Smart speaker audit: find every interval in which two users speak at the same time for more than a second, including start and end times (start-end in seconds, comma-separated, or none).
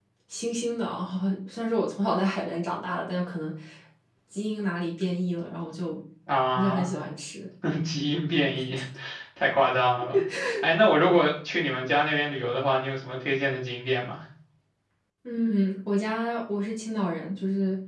none